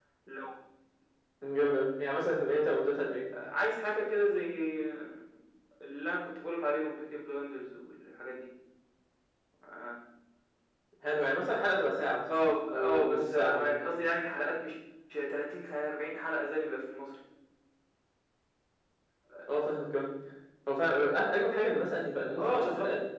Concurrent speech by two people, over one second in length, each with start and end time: 12.7-14.0

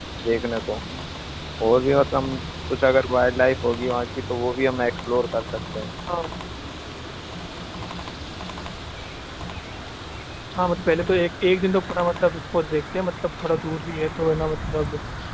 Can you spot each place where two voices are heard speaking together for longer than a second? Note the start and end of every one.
none

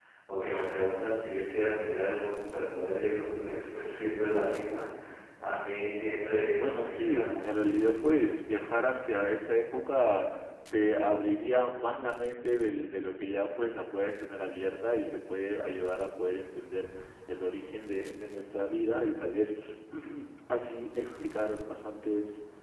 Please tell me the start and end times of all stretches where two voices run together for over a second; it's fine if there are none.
6.6-8.2

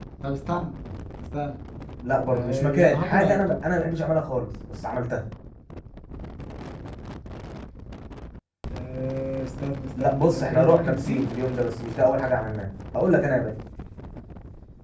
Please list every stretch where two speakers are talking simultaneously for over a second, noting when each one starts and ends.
2.3-3.5, 10.0-11.3

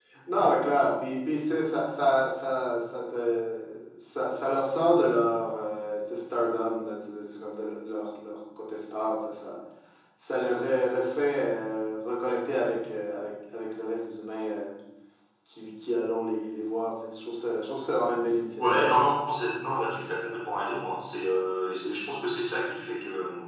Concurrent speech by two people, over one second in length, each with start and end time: none

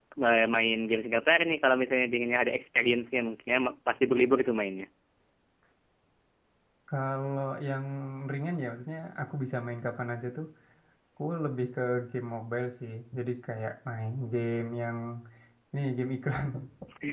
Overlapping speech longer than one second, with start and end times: none

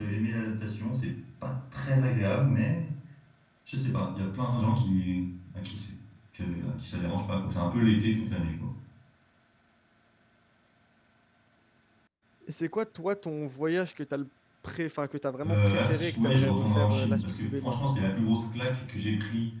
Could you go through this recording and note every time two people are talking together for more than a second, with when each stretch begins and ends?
15.4-18.0

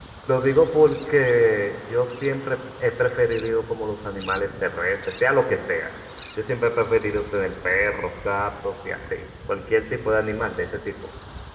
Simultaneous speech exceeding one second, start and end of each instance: none

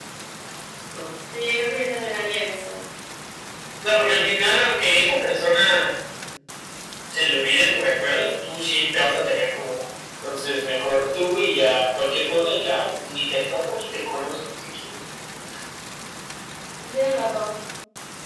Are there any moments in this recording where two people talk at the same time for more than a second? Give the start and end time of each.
none

